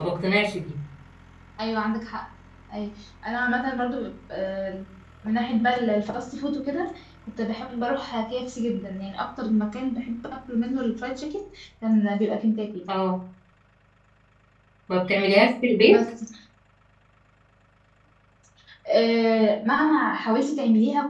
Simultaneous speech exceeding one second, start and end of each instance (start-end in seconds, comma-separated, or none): none